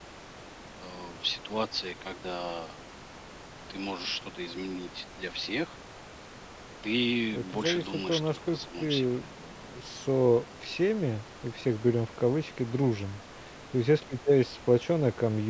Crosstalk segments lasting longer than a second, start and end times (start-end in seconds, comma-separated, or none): 7.3-9.1